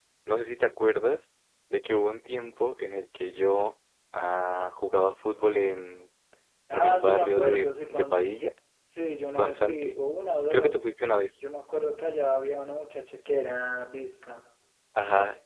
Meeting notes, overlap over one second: present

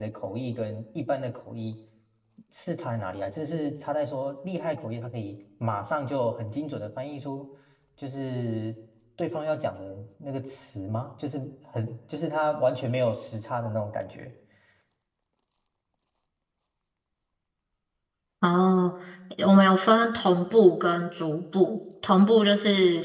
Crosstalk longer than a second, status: none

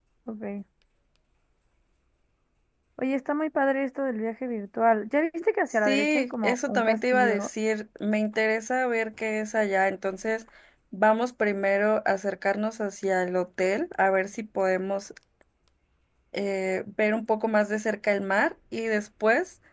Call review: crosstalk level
present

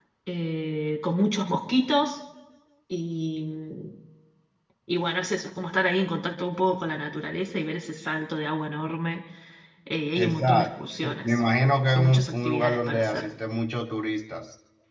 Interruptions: present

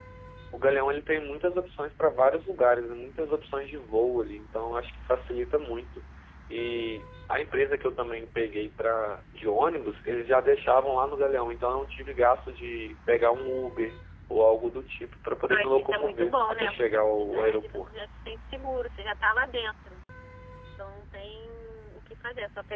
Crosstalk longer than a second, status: present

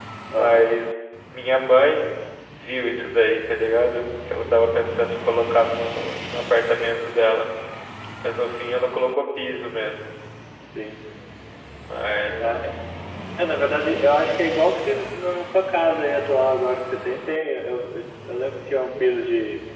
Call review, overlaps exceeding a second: none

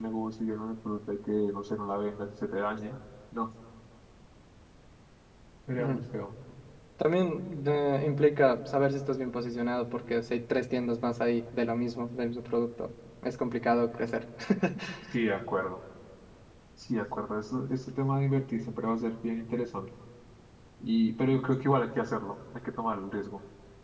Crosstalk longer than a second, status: none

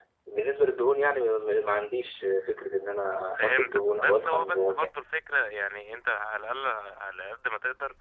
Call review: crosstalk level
present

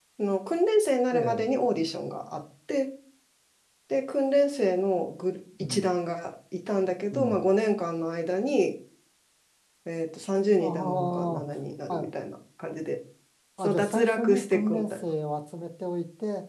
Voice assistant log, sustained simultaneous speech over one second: present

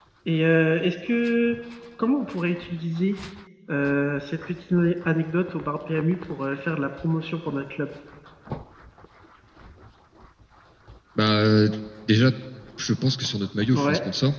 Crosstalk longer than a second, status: none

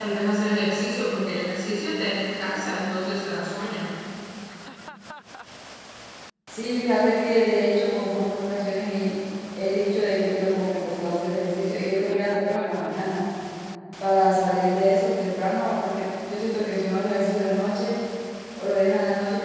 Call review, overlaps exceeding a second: none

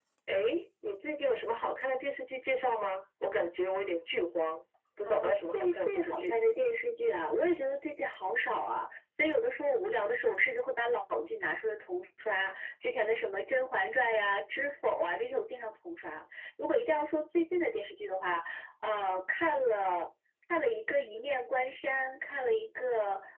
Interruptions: present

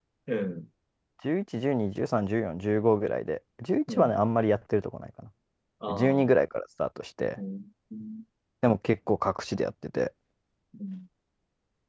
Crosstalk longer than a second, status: none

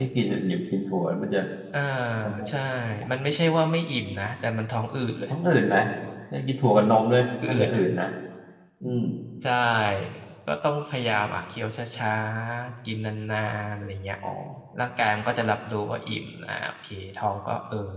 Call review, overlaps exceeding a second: none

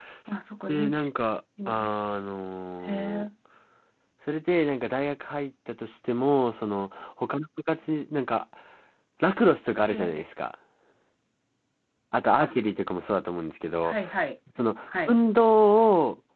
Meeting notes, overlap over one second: none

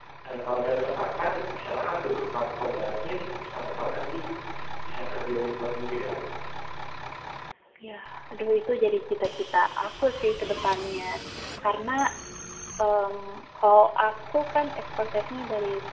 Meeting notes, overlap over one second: none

